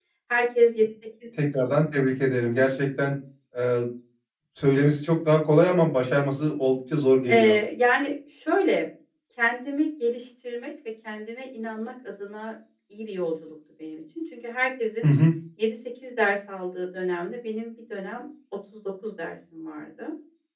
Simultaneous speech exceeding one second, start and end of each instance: none

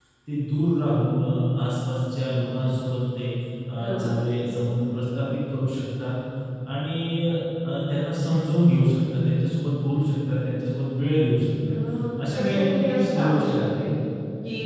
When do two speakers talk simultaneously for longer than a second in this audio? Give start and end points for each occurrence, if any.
12.3-13.8

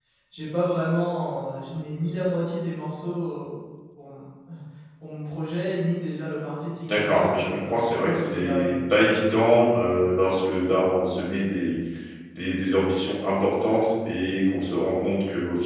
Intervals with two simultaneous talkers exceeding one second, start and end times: 6.8-8.8

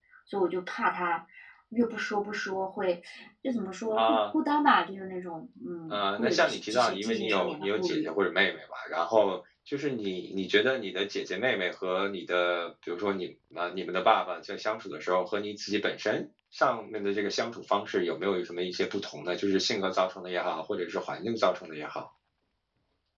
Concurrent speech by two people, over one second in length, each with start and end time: 5.9-8.1

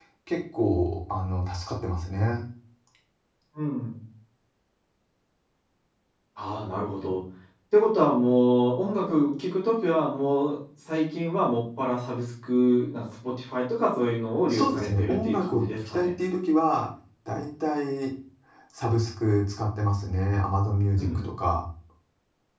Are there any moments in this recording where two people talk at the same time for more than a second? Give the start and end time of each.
14.5-16.1

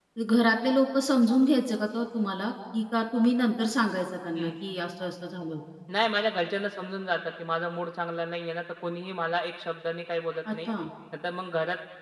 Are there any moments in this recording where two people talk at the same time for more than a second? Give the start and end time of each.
none

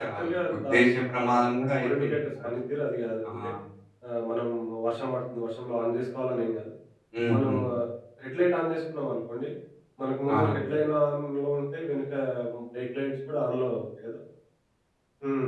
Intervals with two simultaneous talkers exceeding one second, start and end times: 0.6-2.2

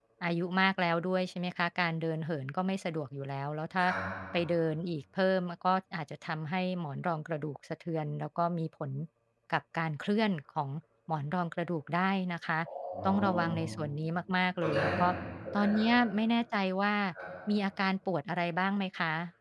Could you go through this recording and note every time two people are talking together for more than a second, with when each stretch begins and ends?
none

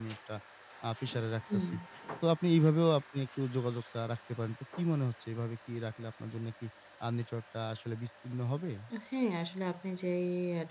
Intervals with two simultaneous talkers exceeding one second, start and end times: none

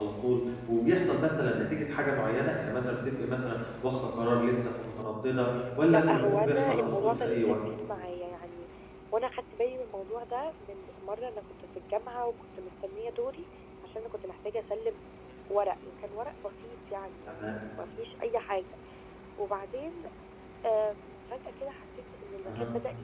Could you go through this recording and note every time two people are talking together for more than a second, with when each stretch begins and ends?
5.9-7.6

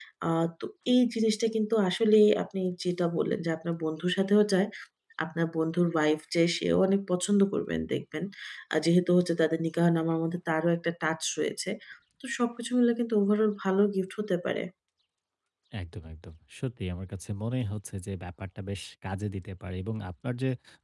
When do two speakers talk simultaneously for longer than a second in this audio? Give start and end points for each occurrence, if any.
none

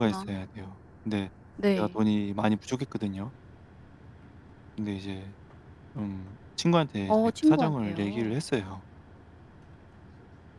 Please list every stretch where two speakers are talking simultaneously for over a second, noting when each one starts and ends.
7.1-8.3

